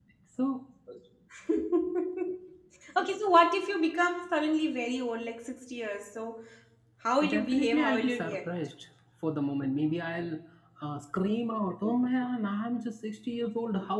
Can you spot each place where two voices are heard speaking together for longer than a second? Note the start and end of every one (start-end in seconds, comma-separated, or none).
7.3-8.5